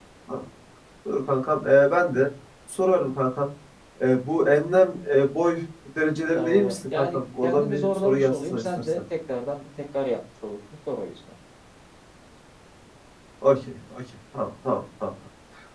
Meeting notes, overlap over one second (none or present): present